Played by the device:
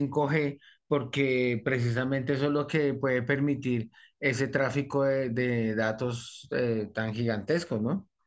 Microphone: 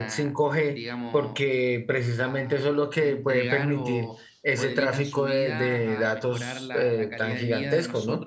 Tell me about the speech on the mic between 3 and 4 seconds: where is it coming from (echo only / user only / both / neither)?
both